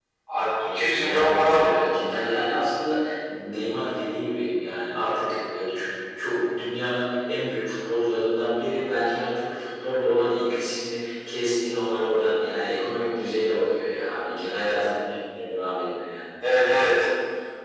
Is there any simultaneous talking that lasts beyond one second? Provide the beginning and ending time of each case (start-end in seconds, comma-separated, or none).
0.6-1.8